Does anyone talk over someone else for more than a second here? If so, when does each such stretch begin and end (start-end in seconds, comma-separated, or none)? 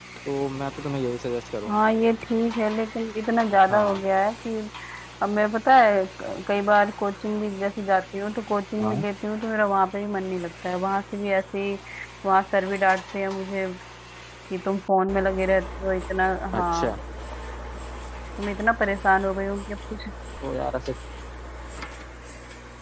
none